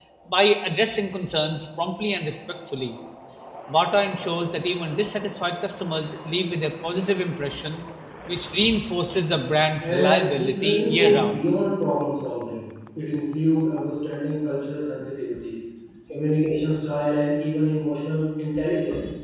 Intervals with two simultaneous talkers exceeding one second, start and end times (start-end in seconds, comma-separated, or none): 9.8-11.4